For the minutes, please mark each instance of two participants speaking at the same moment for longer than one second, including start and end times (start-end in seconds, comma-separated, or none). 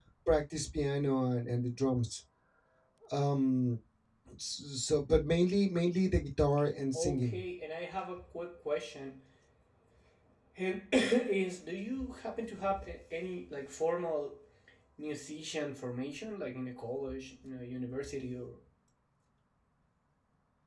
none